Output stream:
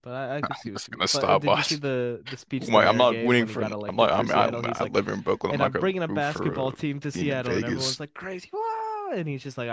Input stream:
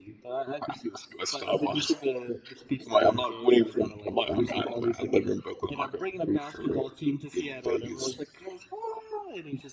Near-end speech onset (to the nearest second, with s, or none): none